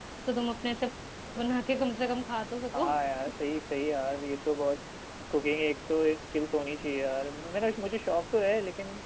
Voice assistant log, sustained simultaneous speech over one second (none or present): none